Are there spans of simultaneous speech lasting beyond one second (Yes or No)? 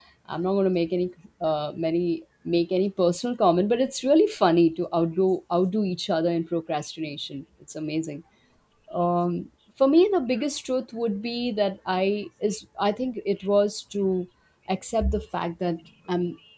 No